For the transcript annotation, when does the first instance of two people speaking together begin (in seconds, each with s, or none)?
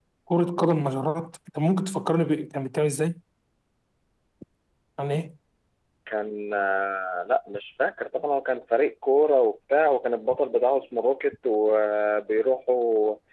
none